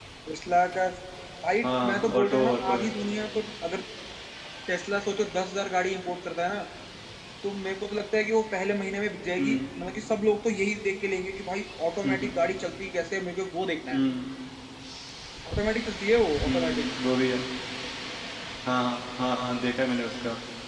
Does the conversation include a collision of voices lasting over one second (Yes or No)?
Yes